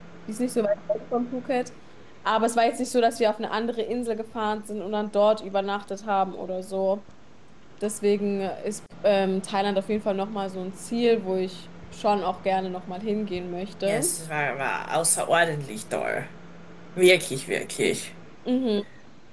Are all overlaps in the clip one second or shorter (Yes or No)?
Yes